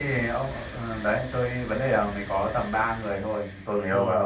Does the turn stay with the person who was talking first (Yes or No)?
Yes